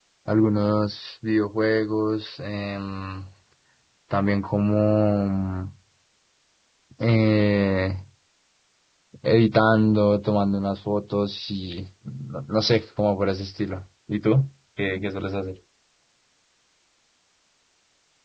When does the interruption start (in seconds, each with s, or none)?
none